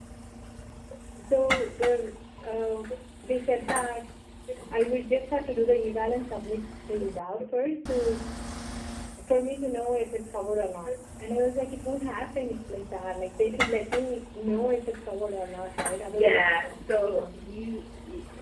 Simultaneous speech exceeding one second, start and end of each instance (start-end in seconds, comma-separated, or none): none